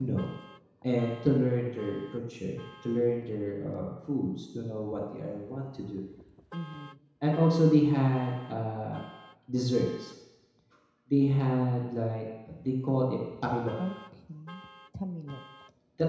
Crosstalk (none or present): none